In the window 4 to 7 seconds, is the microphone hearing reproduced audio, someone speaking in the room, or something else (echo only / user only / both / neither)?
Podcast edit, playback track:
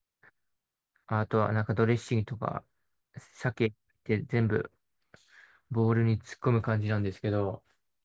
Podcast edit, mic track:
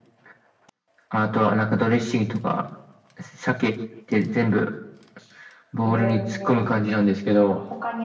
both